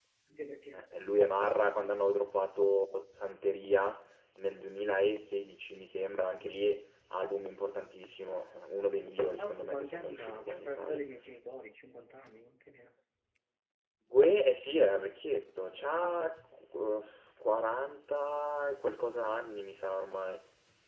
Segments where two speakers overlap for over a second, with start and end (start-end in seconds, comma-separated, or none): 9.2-11.0